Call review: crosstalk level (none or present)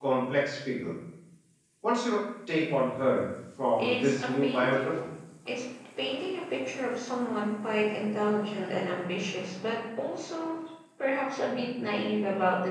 present